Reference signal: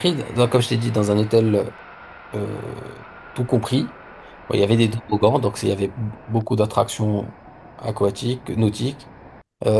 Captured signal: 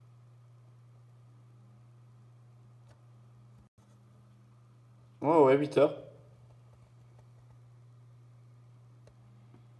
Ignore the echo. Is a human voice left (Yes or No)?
Yes